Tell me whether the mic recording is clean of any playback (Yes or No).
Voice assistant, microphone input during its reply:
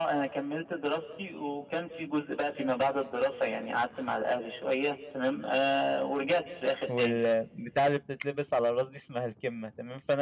No